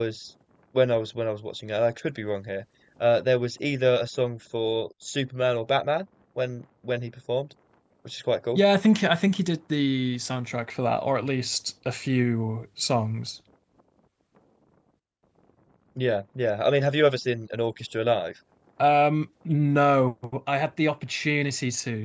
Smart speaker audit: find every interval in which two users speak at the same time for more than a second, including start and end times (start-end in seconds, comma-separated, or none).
none